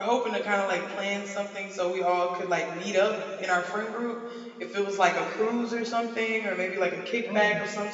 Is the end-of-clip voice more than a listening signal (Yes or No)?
No